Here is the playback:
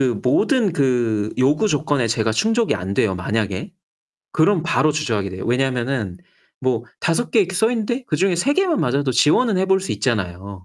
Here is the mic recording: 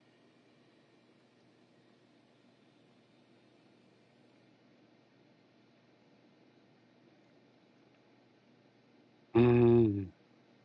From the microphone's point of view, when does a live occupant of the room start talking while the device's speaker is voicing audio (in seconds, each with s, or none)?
9.4 s